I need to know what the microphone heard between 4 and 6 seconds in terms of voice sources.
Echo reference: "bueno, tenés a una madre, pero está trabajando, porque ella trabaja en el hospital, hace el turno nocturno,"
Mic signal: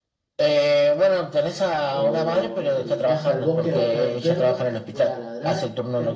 both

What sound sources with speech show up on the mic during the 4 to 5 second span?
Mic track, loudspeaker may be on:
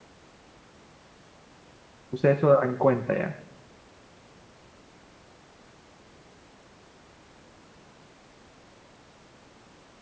neither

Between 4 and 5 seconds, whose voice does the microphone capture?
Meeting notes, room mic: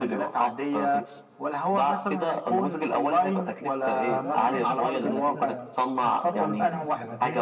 both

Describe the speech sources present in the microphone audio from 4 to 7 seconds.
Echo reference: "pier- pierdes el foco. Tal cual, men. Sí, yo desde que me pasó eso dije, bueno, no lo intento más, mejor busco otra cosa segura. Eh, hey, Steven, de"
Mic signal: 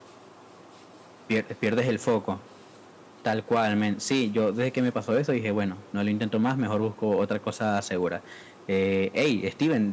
echo only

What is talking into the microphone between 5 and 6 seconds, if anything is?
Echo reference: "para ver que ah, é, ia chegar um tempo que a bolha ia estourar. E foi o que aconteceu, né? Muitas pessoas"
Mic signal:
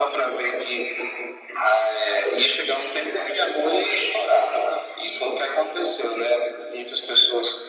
echo only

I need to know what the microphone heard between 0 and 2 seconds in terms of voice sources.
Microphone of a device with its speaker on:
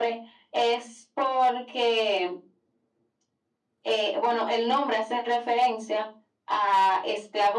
echo only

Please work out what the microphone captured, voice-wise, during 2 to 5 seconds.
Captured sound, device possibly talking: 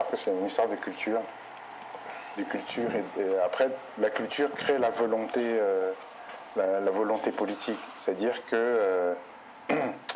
echo only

